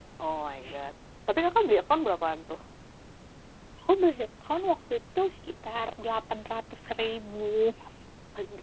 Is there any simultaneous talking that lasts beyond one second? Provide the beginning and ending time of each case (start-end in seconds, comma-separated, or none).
none